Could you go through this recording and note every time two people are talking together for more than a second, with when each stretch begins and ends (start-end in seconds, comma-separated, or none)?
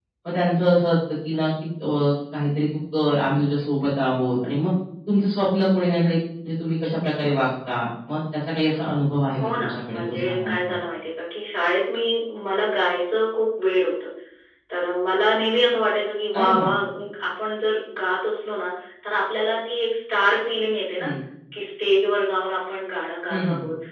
9.4-10.8